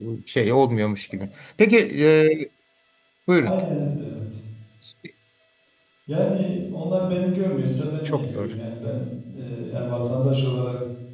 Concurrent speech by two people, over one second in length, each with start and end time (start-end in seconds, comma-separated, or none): none